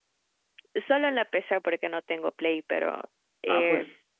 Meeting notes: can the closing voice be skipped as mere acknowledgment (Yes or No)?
No